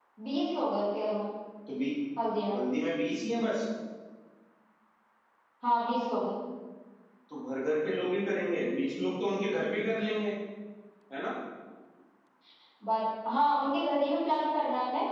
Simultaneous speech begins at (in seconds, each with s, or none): none